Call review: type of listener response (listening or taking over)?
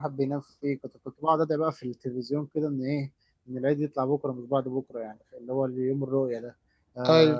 listening